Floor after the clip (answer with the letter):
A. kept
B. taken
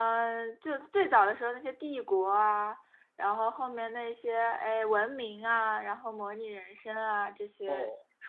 A